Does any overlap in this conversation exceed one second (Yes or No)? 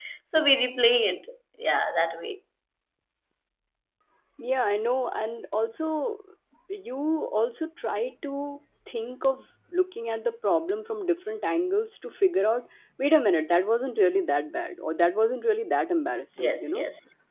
No